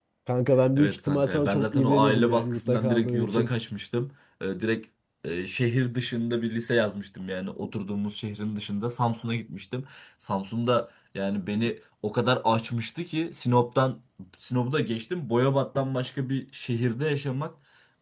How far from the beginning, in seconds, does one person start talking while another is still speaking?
0.8 s

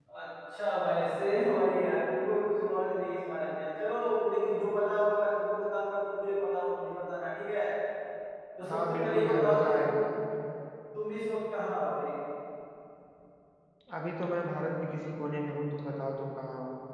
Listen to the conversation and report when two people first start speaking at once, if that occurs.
8.7 s

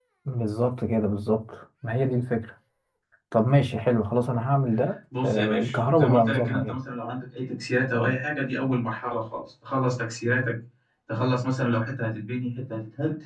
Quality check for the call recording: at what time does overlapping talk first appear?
5.1 s

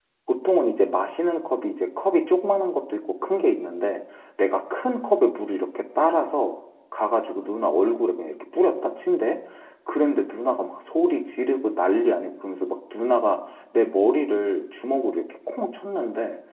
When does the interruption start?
none

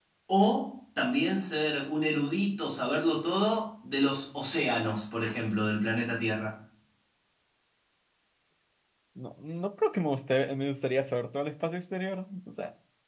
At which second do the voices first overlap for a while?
none

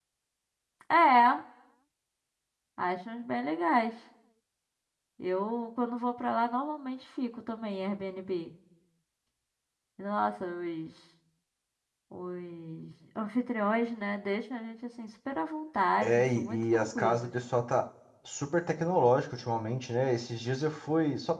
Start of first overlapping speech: 16.0 s

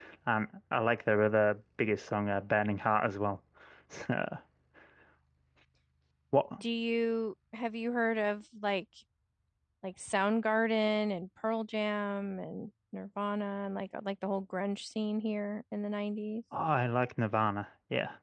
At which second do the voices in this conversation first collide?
none

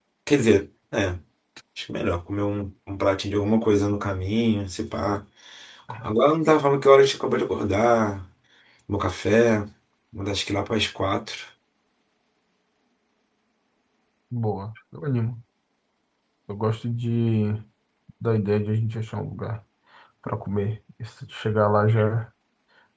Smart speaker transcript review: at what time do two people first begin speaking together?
none

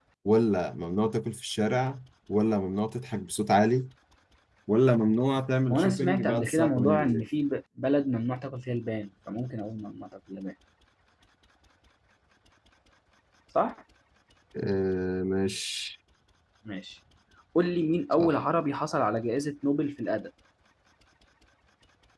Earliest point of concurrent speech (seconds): 5.7 s

